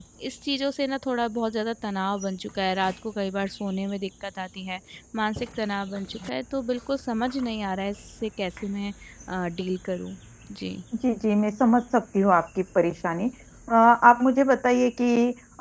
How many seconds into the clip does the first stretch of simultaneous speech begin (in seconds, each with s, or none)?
none